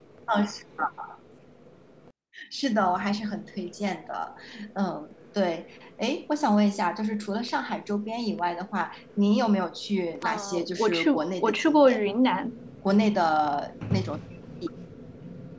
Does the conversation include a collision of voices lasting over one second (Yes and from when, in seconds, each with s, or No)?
Yes, from 10.2 s